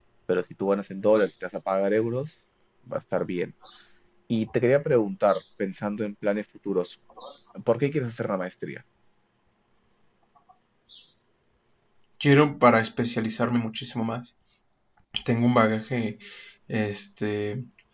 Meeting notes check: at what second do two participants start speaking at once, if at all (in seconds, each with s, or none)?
none